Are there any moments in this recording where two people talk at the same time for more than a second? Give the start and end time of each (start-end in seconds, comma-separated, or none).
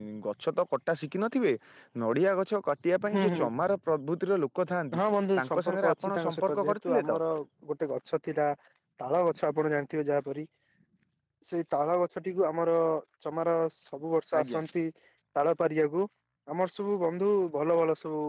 5.3-7.1